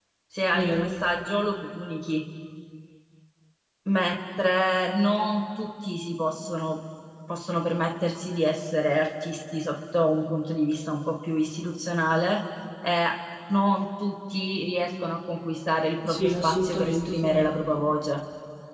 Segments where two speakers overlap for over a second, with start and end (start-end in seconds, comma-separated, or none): 16.1-17.8